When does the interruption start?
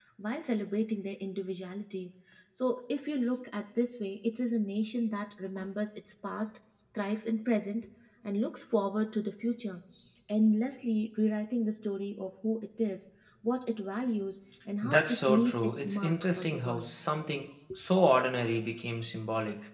14.8 s

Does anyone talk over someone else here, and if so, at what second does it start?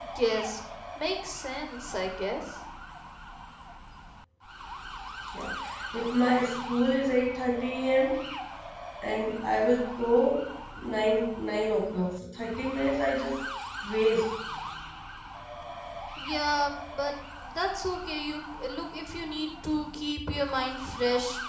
none

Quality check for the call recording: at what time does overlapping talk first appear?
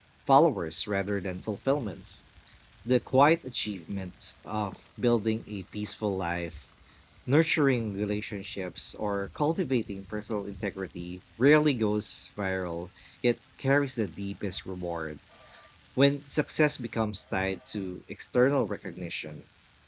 none

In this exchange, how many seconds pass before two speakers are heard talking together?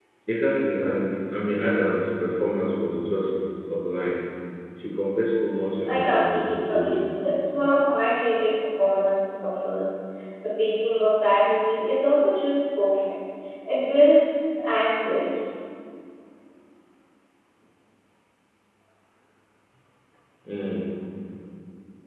5.9 s

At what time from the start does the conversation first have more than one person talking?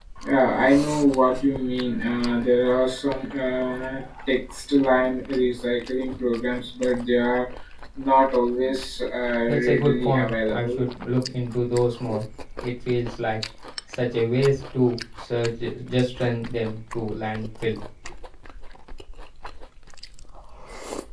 9.5 s

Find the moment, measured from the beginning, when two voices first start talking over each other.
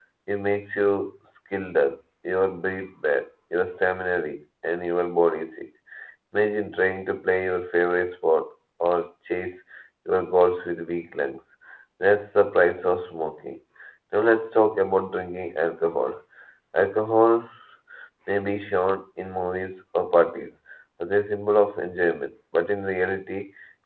none

